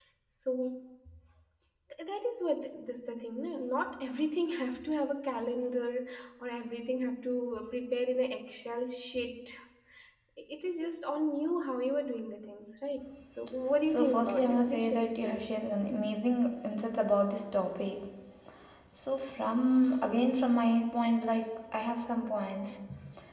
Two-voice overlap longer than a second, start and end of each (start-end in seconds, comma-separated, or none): 13.9-15.5